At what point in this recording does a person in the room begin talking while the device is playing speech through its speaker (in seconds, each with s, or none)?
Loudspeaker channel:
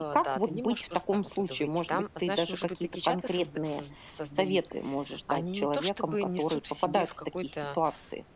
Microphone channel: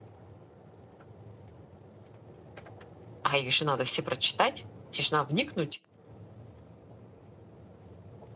3.2 s